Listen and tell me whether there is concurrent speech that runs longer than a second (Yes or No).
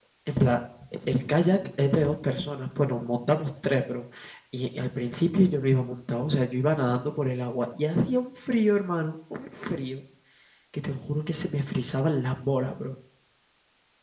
No